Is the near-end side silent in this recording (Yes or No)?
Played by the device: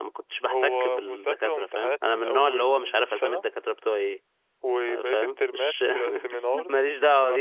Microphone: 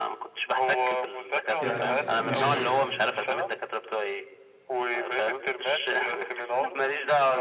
No